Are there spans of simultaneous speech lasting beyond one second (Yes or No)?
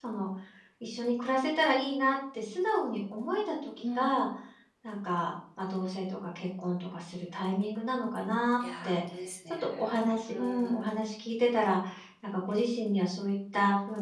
No